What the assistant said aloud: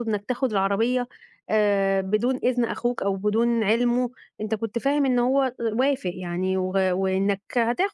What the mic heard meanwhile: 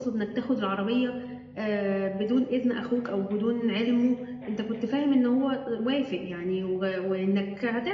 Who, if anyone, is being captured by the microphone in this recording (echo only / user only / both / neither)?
echo only